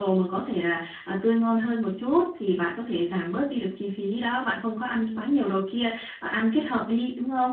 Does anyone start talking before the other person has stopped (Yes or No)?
No